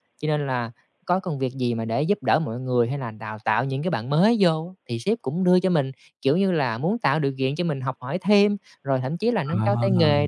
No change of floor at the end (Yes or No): Yes